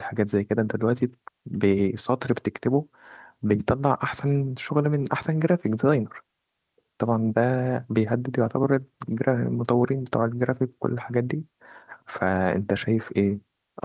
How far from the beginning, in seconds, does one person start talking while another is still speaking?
none

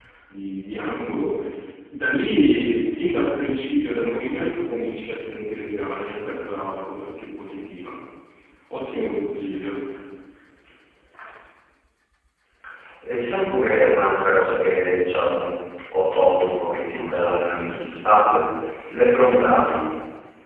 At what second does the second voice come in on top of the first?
none

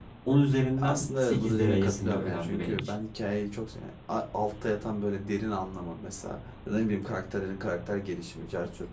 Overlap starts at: 1 s

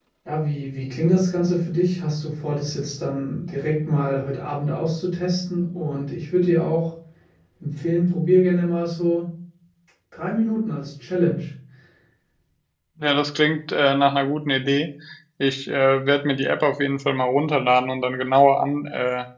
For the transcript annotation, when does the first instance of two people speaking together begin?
none

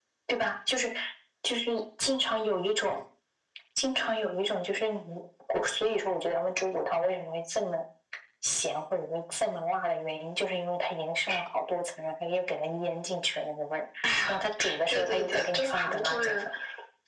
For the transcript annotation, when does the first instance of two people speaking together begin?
15 s

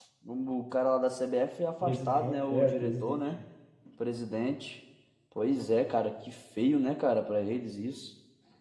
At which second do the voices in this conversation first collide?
2 s

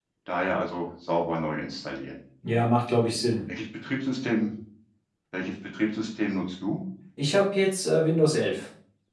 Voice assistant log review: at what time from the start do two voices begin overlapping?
none

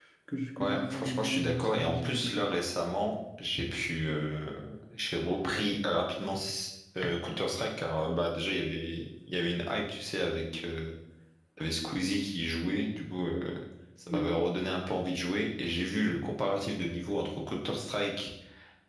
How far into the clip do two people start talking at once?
1 s

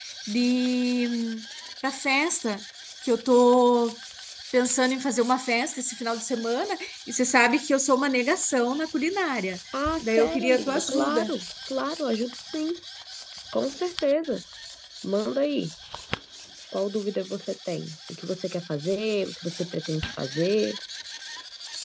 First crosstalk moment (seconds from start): 10 s

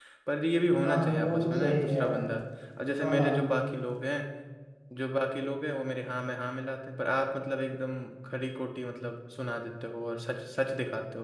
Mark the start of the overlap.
1 s

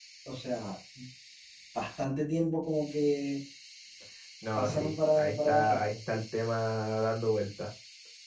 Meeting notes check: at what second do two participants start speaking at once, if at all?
5 s

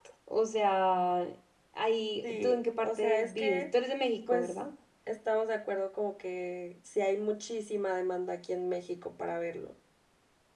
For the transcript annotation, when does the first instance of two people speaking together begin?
2 s

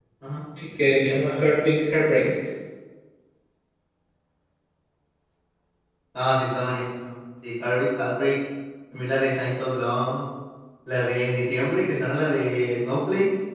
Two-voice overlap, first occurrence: none

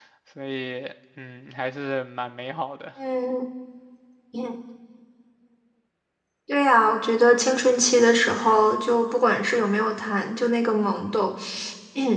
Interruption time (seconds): none

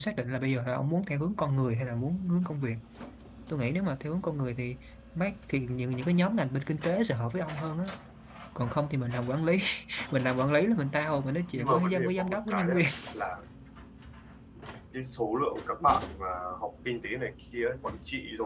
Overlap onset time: 12 s

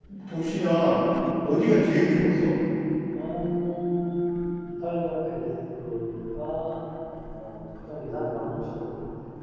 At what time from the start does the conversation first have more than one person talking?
none

